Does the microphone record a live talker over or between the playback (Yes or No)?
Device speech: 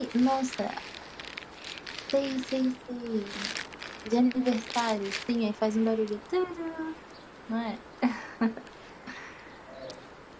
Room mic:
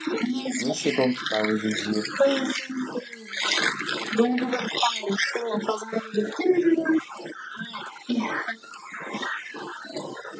Yes